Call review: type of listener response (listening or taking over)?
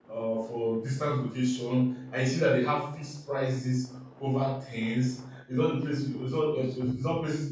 listening